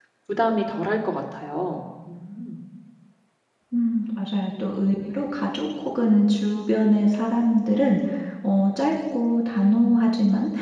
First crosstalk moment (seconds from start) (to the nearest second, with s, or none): none